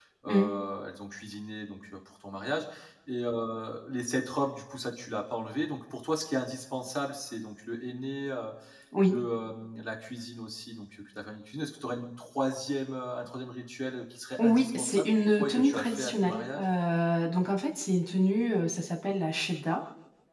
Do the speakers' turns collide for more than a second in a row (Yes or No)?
Yes